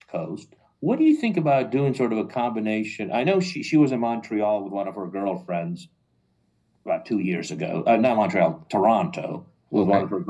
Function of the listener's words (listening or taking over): listening